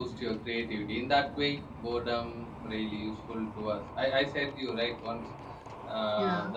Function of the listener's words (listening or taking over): listening